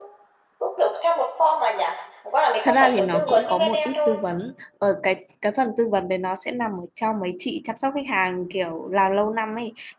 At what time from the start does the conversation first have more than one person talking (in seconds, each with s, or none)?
2.6 s